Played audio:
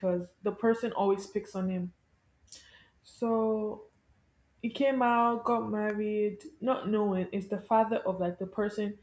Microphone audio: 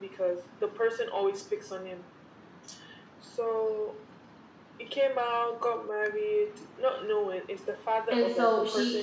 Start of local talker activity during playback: 8.1 s

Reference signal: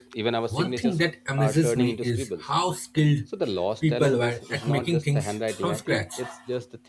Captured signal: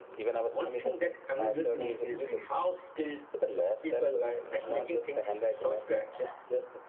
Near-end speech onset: 1.4 s

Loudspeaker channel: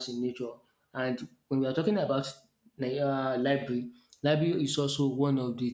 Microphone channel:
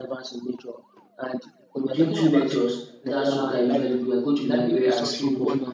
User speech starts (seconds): 1.8 s

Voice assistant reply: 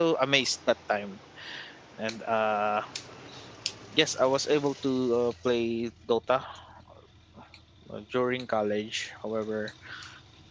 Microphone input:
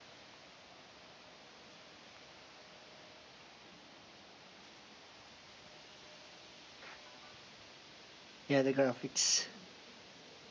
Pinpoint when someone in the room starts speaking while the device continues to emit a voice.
8.5 s

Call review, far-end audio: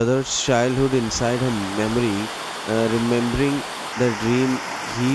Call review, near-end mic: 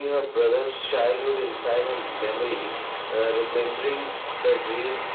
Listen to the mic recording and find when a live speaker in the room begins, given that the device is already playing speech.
none

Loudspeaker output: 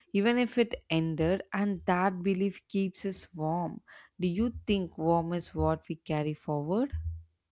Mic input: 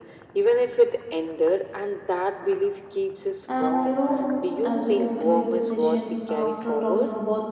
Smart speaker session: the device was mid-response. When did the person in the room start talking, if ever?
3.5 s

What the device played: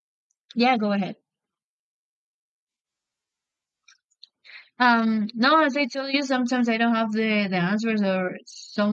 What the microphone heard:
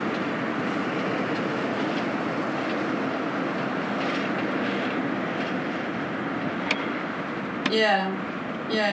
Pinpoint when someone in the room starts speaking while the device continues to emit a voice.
7.6 s

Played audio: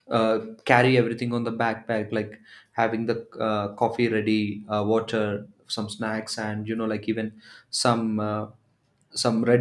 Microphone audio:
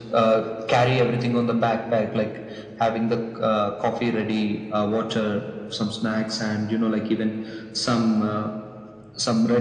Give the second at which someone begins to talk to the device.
none

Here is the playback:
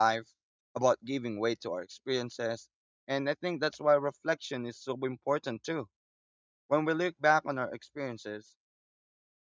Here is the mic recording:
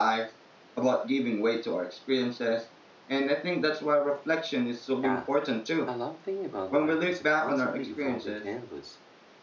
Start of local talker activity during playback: 5.0 s

